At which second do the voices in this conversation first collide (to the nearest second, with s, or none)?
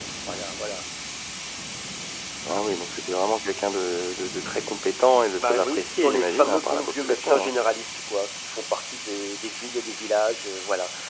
5 s